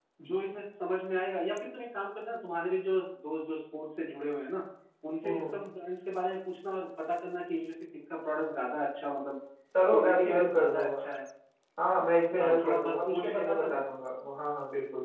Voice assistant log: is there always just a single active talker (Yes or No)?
No